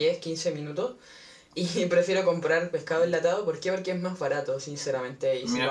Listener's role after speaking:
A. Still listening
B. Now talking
A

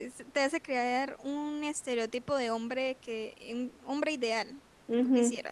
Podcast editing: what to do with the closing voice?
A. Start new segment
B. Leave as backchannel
A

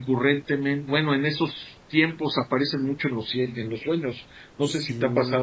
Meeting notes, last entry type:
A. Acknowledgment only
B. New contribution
B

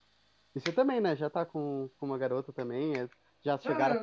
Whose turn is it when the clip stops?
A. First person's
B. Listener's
B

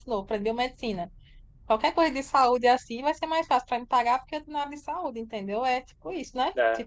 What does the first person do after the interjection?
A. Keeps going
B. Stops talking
B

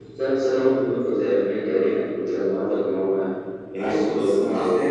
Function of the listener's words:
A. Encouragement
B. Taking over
B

